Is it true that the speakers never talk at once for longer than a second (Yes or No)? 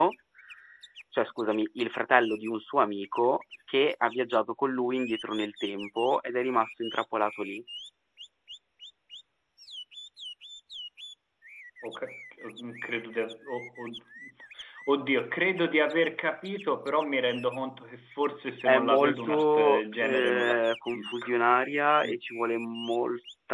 No